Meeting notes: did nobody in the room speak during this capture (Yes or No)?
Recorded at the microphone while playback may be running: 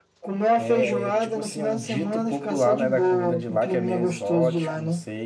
No